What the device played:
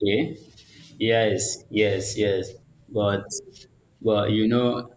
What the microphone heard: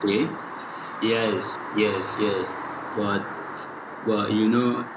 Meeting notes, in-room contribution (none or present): none